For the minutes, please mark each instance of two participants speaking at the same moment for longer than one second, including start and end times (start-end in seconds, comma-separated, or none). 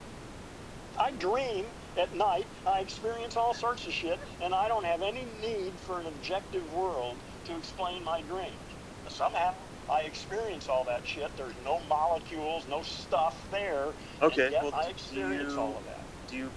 14.3-15.8